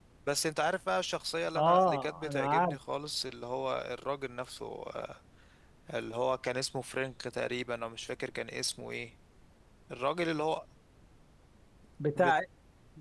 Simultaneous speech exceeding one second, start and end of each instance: 1.6-2.8

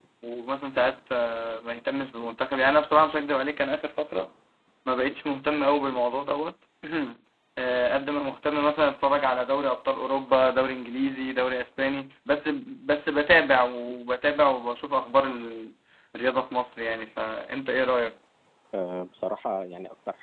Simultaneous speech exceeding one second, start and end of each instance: none

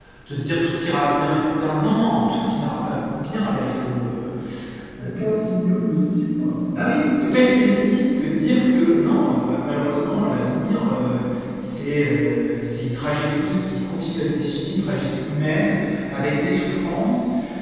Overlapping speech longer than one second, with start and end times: none

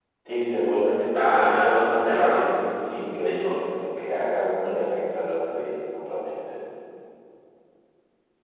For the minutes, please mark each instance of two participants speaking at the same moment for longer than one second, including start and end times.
1.0-2.5

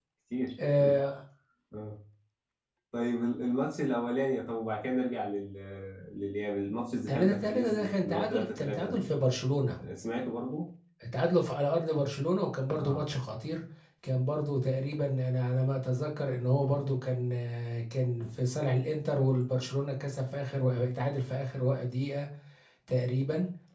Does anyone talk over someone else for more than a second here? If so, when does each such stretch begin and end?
7.1-9.0

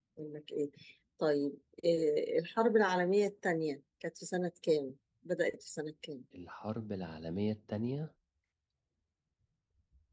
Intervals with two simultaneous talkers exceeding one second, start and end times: none

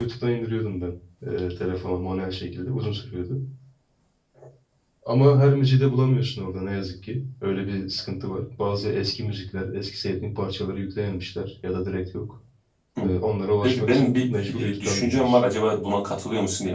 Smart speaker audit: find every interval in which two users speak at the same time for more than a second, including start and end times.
13.6-15.4

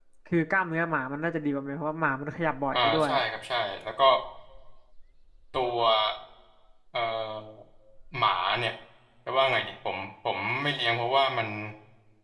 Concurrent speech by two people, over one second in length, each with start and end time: none

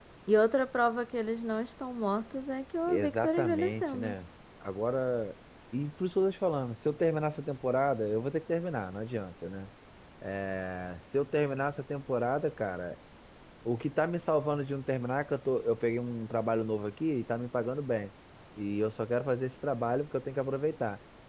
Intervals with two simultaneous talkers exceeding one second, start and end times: 2.9-4.1

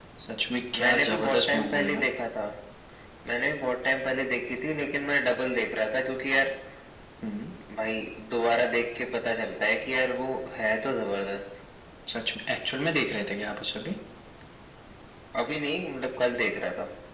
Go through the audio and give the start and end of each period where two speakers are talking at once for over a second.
0.8-2.0

